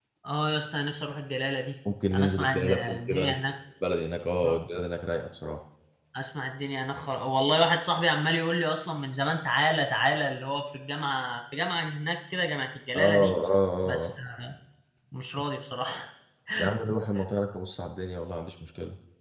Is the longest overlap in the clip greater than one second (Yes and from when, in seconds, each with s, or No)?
Yes, from 2.1 s